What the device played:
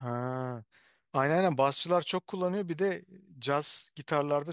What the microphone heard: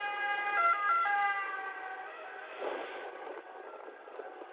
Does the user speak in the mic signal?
No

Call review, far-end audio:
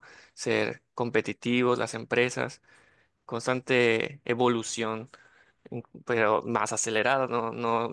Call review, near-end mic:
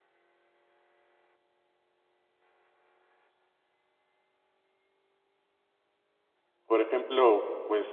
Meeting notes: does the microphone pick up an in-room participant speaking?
Yes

